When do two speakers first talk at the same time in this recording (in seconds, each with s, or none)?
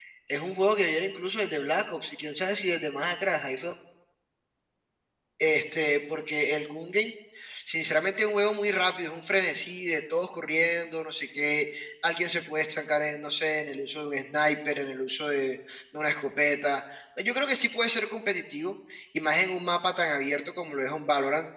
none